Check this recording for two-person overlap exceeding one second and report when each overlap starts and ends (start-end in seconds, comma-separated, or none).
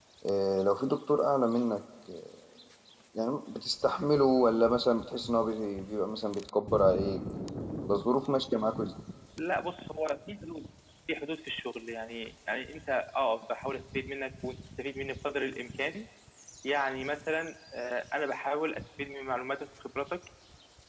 none